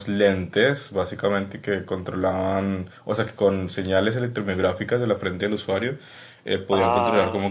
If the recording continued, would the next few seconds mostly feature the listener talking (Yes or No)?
No